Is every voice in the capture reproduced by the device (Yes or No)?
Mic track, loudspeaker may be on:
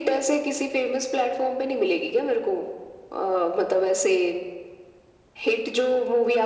Yes